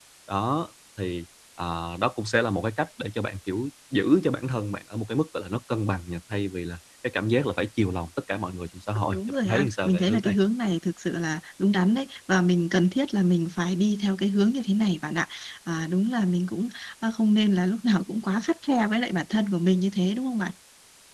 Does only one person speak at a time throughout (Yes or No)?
No